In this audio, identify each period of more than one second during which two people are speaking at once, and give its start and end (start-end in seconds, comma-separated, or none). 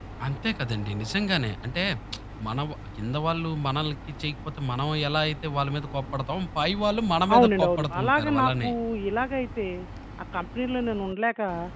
7.3-8.7